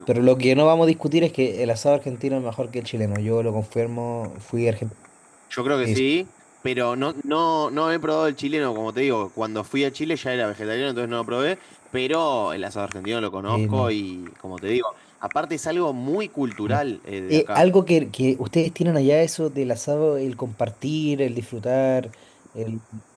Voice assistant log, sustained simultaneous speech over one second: none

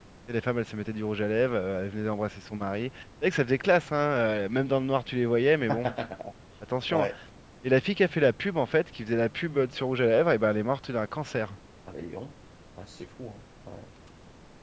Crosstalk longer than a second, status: none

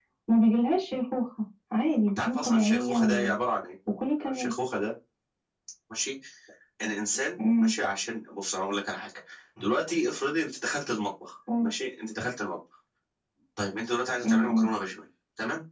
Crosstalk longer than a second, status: present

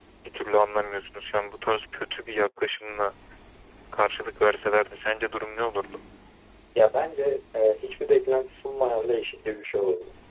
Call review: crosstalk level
none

